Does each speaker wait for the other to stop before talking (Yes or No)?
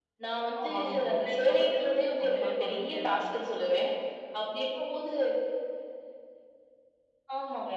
No